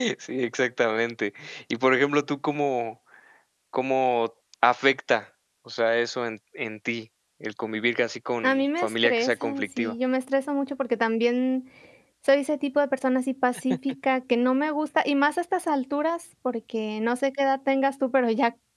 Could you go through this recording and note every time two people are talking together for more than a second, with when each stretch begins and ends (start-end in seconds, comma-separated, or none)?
8.4-9.9